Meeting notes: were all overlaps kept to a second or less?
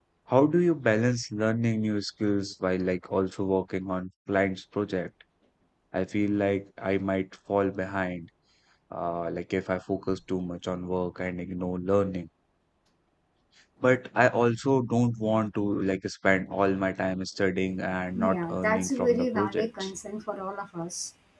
No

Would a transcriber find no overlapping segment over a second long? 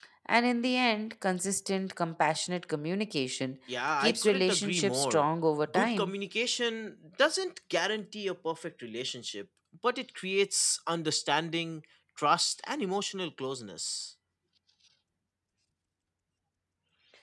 No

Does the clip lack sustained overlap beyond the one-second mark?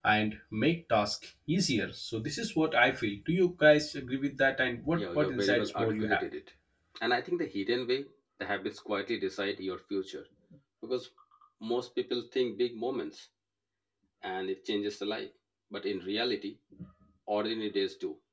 No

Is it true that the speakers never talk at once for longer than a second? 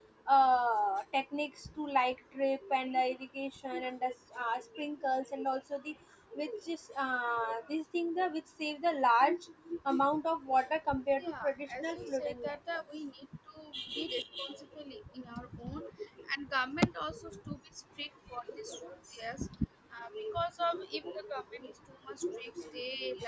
No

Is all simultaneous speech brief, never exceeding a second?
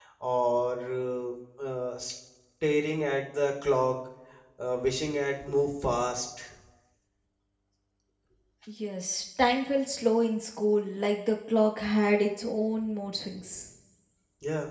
Yes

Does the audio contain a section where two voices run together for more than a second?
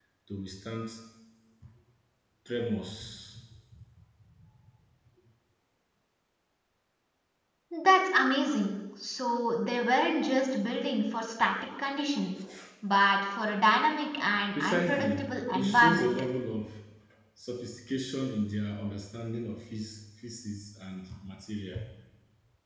Yes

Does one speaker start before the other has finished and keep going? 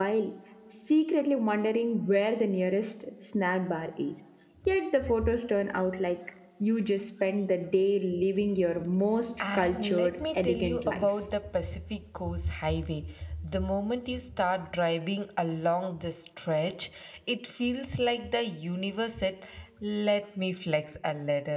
Yes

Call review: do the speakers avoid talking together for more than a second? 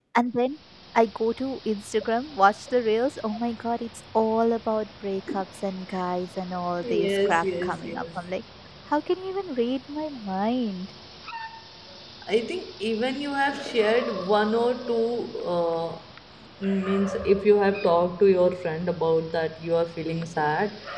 No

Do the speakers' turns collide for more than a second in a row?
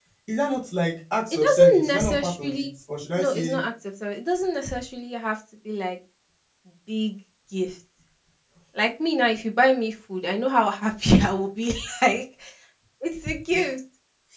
Yes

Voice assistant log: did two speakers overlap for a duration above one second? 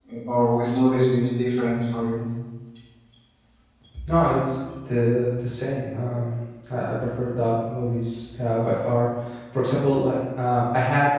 No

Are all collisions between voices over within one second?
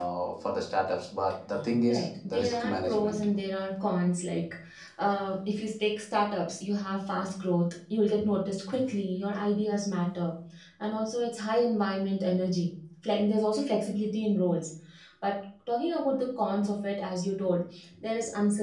No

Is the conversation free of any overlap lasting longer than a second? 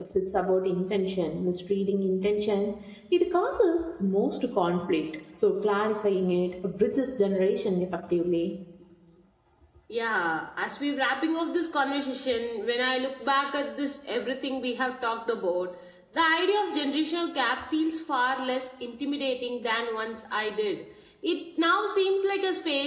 Yes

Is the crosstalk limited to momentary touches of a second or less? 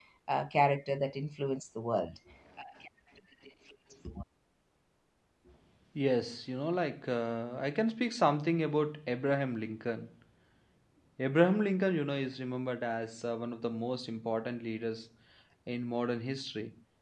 Yes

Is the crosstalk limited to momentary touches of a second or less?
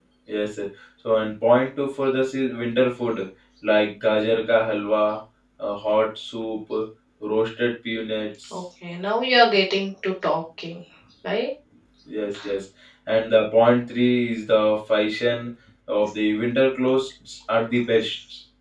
Yes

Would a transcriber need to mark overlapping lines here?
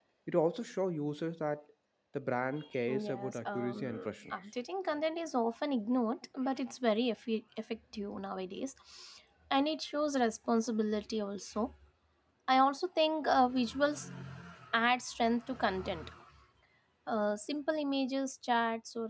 Yes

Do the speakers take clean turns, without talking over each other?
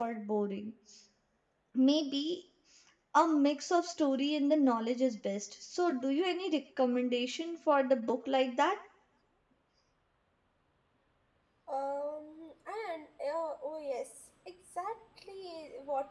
Yes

